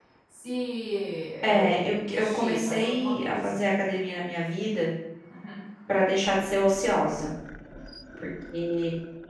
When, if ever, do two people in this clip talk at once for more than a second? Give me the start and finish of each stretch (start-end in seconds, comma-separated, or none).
1.4-3.6